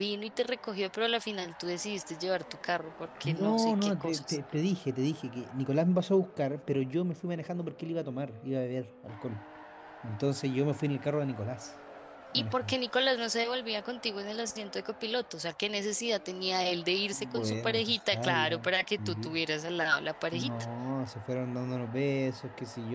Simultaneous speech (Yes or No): Yes